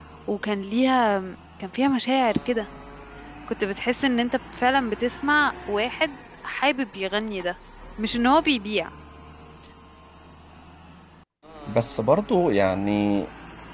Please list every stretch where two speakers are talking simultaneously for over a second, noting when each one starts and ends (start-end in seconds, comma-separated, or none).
none